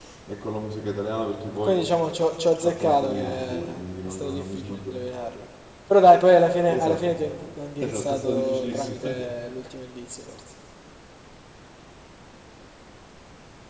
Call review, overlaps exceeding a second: present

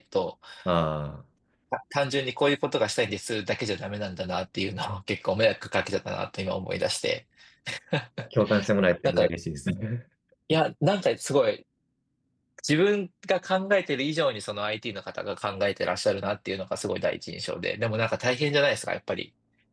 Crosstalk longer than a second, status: none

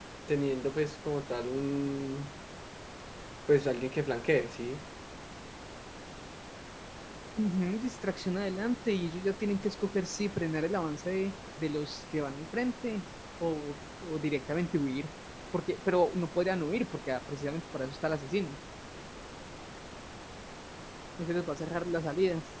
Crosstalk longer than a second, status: none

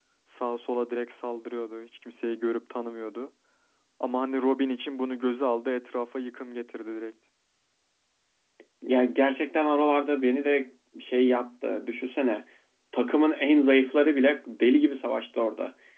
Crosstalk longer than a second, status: none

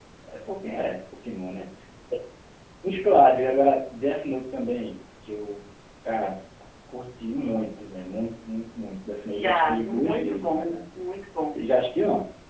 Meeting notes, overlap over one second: present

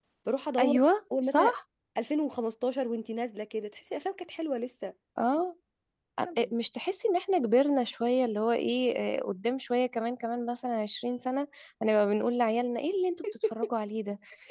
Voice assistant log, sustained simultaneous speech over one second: none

